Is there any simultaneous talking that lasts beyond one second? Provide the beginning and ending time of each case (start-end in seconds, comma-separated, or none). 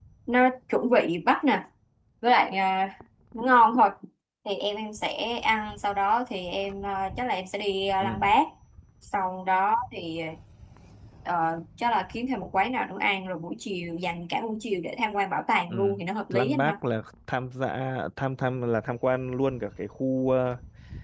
none